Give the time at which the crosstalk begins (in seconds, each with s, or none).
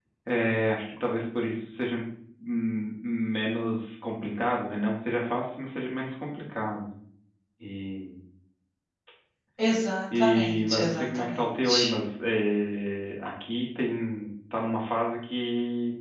10.2 s